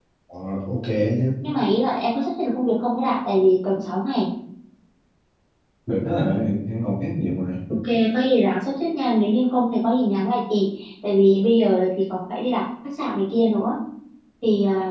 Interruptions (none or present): none